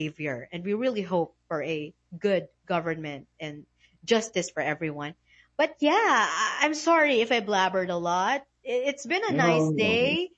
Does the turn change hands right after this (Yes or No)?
No